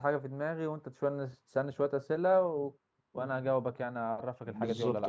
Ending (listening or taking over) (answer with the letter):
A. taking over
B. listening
A